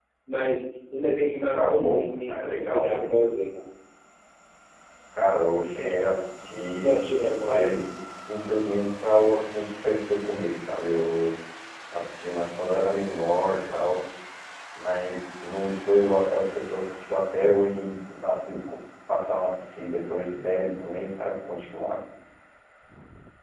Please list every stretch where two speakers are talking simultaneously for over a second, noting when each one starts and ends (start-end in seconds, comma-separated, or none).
1.5-3.0